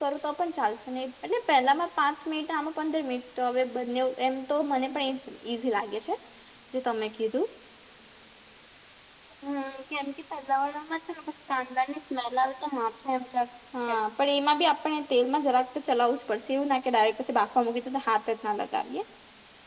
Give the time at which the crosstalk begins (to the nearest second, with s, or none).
none